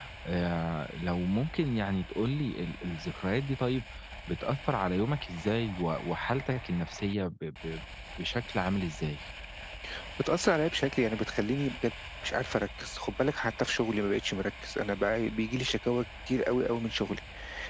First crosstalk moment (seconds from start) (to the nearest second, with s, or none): none